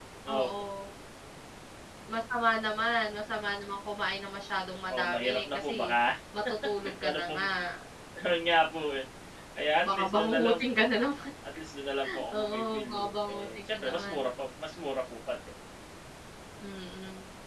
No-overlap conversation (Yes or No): No